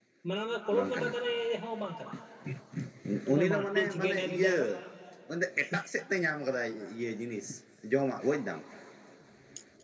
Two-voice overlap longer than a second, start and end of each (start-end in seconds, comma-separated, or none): 3.3-4.5